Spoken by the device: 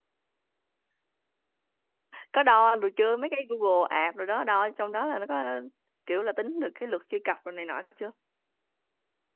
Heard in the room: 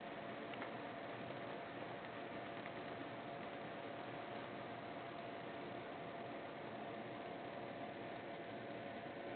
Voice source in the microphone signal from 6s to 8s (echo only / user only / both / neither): neither